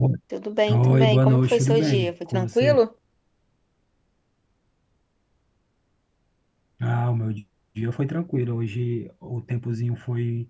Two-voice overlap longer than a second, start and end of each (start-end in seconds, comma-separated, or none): 0.7-2.8